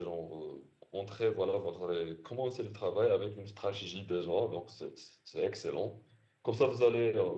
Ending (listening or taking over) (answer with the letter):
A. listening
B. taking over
A